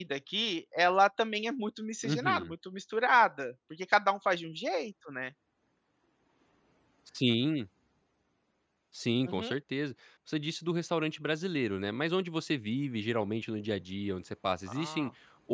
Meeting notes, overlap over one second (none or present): none